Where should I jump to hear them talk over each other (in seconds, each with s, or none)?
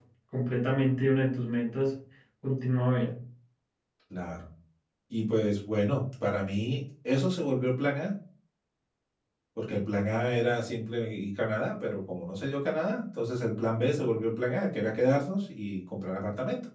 none